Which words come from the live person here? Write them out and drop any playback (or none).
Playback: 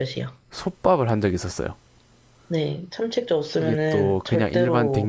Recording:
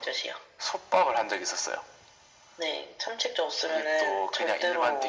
none